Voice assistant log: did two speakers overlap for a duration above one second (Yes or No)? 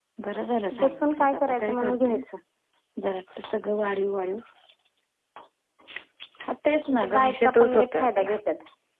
Yes